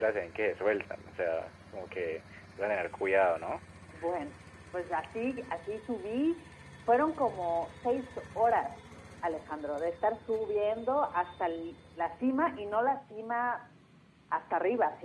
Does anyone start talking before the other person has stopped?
No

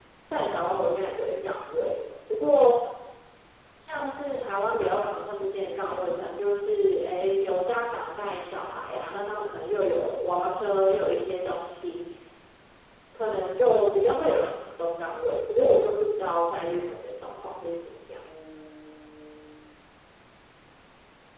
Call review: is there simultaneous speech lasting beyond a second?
No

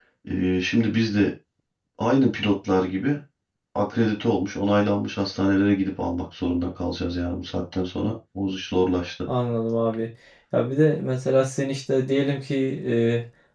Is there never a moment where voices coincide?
Yes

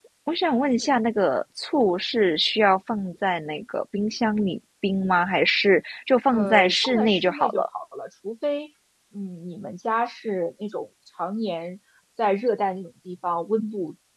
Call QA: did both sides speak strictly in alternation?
No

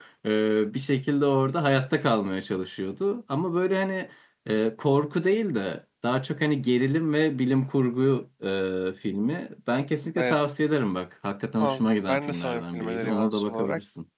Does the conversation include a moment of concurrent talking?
Yes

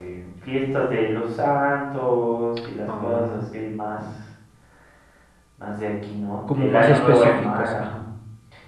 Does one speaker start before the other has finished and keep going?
Yes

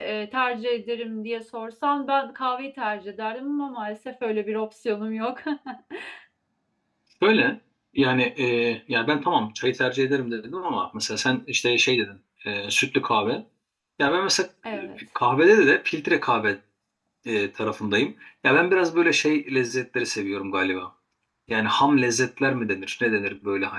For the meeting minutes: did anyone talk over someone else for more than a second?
No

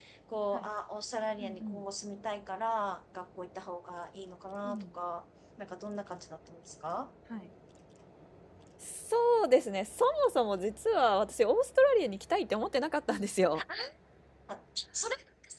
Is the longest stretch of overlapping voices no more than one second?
Yes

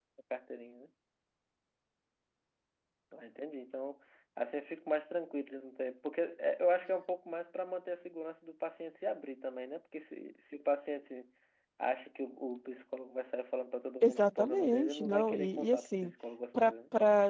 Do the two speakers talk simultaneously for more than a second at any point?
Yes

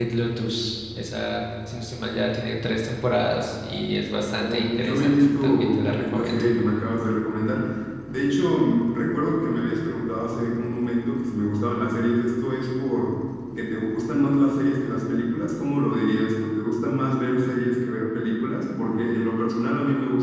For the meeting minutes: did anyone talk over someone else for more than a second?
Yes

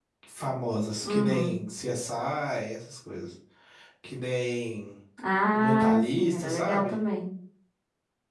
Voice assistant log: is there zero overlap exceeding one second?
No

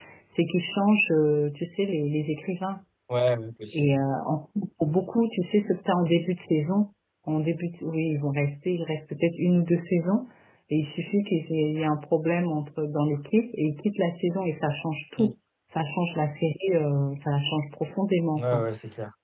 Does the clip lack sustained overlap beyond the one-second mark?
Yes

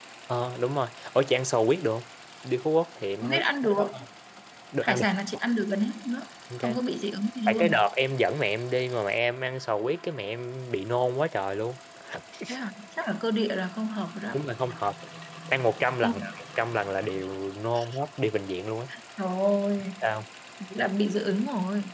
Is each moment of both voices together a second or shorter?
Yes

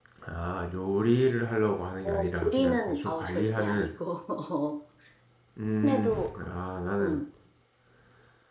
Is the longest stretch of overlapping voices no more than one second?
No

